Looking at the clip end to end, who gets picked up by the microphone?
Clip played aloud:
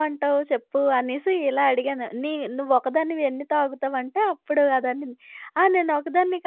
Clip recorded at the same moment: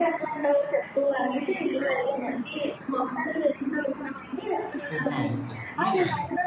both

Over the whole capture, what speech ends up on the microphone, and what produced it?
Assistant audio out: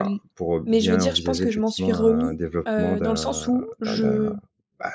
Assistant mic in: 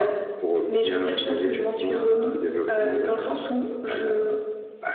echo only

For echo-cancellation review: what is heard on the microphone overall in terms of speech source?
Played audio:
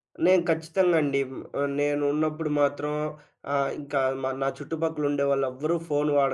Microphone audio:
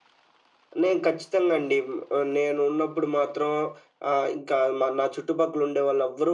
echo only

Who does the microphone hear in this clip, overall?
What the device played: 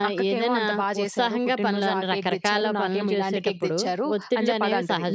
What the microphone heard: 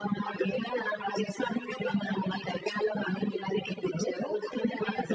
echo only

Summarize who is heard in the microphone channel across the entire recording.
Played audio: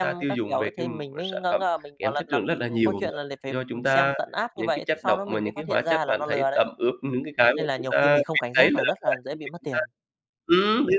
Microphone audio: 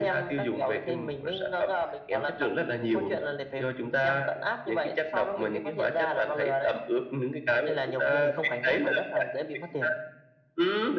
echo only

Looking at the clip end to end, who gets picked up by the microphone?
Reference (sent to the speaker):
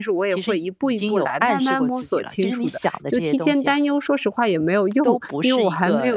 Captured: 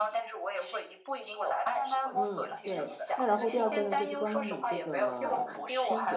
both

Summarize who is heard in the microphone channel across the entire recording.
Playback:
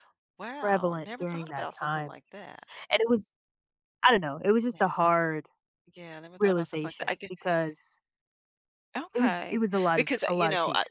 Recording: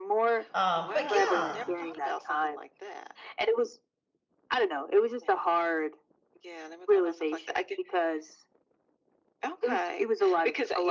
both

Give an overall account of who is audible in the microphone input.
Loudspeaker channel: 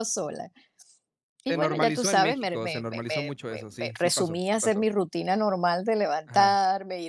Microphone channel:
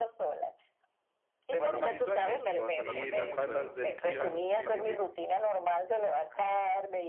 both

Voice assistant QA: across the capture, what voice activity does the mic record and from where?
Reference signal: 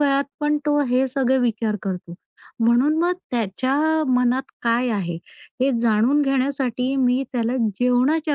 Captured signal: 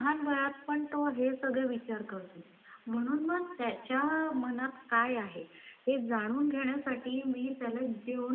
echo only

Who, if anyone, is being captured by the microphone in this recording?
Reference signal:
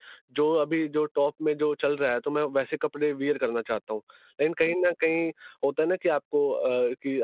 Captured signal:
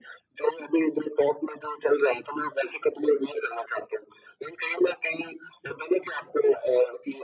echo only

